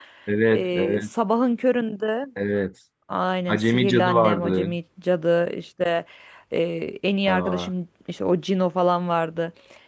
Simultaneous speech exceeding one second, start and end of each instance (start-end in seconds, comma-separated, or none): 3.5-4.7